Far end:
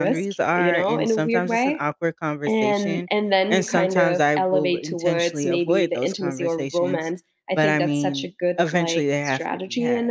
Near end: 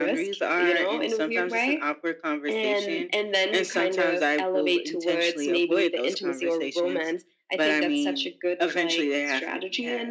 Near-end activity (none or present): none